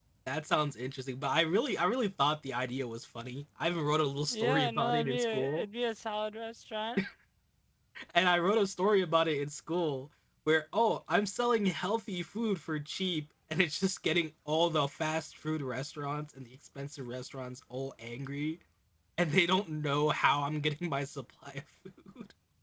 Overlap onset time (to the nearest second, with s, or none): 4 s